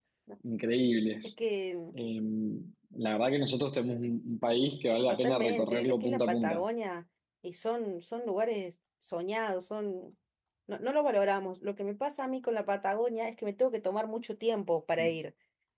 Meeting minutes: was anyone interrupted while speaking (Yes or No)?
Yes